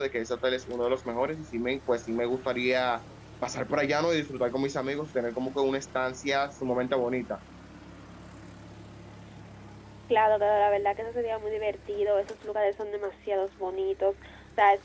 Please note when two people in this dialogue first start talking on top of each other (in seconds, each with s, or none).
none